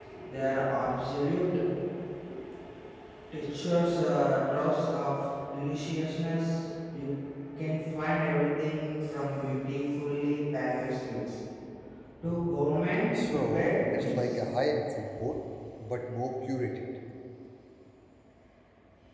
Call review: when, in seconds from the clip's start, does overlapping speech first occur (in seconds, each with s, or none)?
13.1 s